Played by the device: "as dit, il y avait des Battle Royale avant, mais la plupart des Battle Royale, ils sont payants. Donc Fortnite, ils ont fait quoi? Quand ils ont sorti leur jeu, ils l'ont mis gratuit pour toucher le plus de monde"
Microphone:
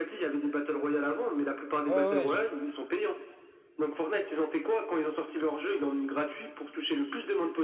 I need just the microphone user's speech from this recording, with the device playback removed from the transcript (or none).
ouais, ouais, je-